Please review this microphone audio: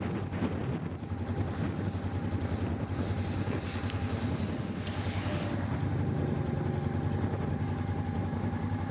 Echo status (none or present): none